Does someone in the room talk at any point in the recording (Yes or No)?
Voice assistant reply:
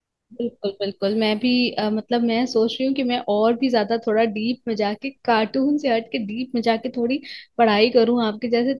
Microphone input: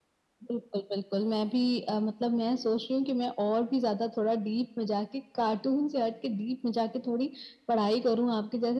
No